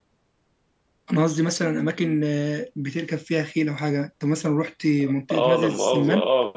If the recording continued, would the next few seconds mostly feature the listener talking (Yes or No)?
Yes